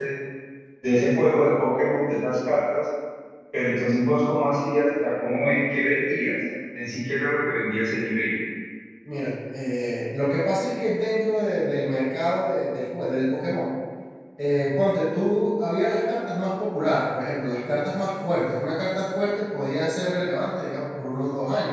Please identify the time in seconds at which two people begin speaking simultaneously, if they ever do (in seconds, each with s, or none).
none